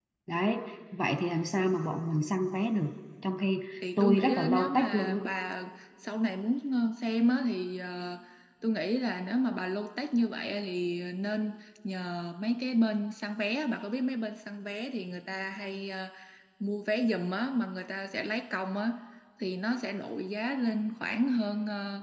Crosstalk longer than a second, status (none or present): present